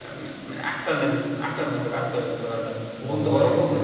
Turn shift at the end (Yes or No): No